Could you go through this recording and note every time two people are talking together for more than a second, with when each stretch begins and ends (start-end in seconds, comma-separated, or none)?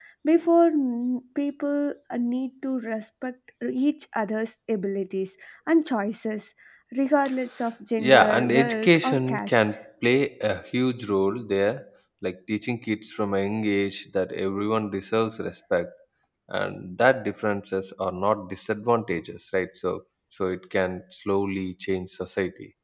8.0-9.6